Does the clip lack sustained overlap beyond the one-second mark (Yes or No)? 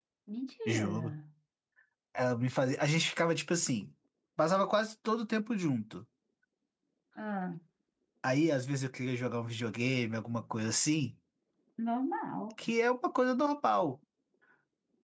Yes